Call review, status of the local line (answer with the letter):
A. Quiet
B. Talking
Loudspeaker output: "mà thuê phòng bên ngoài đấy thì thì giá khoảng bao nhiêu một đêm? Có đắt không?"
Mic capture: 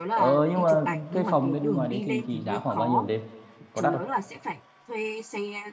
B